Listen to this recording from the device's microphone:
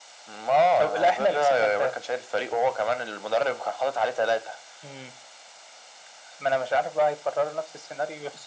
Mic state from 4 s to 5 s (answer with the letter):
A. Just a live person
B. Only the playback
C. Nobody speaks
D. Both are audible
B